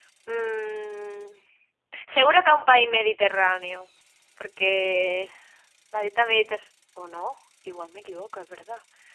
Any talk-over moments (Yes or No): No